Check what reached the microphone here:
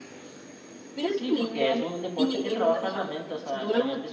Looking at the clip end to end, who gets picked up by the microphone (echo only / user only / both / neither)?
both